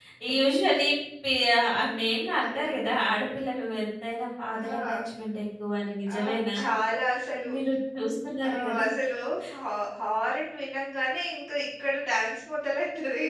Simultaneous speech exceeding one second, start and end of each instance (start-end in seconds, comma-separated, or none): none